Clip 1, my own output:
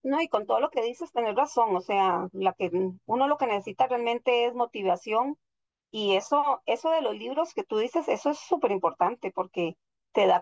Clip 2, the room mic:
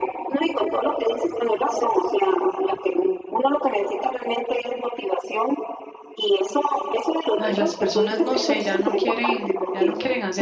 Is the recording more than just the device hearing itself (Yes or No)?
Yes